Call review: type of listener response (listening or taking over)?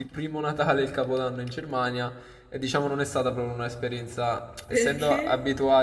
listening